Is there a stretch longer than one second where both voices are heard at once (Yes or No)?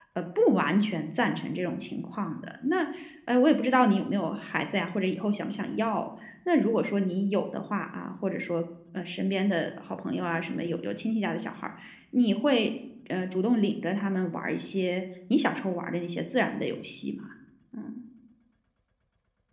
No